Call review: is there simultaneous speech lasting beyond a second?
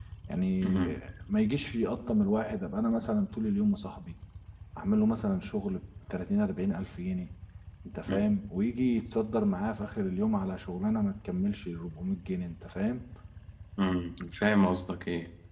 No

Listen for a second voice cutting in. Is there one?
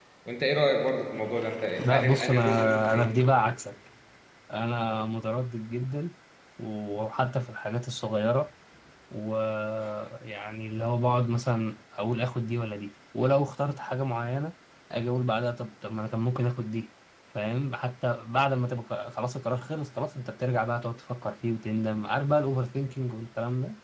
Yes, from 1.8 s

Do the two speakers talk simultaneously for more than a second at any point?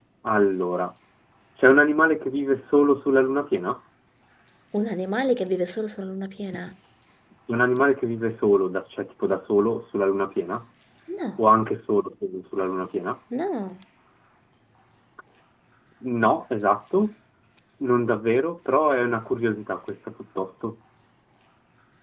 No

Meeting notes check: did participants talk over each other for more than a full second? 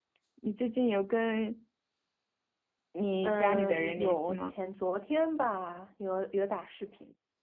Yes, from 3.2 s

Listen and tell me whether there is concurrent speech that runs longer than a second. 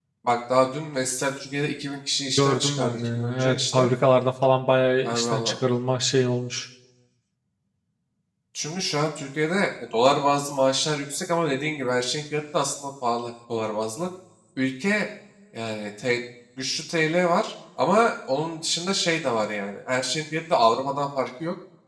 Yes, from 2.4 s

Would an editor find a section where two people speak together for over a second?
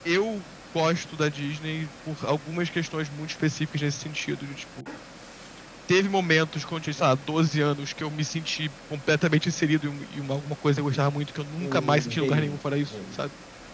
Yes, from 11.6 s

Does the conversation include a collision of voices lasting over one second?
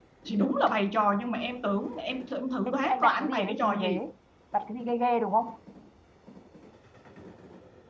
Yes, from 2.7 s

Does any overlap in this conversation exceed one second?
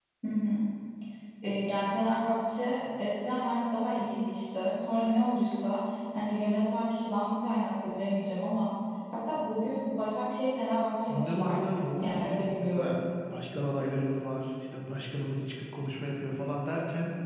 Yes, from 11.1 s

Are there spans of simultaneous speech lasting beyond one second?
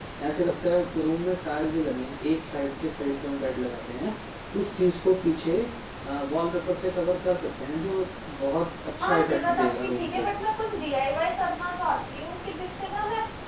Yes, from 9.0 s

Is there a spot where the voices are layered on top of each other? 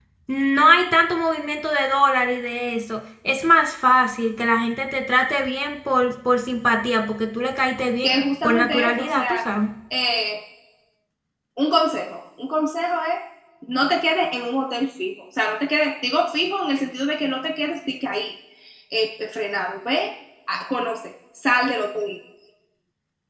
Yes, from 8.0 s

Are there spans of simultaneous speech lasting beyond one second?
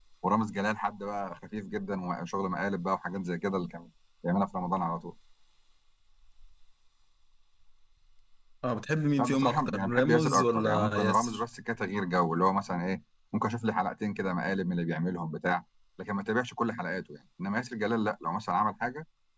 Yes, from 9.2 s

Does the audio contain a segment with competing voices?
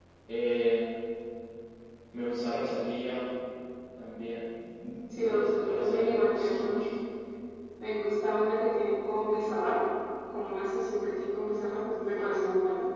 Yes, from 5.1 s

